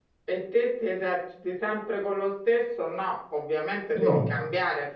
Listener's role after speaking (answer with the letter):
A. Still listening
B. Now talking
A